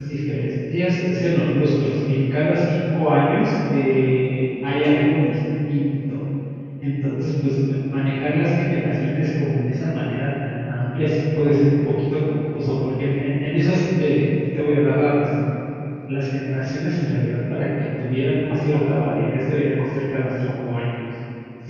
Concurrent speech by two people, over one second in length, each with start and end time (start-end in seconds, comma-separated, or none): none